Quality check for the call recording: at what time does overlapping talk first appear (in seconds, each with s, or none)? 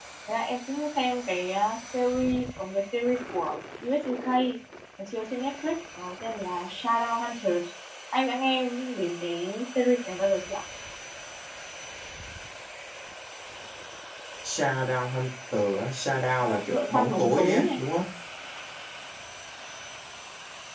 16.4 s